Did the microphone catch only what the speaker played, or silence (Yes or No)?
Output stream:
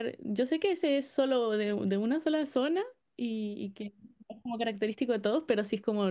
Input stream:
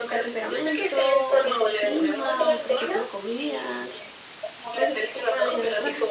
No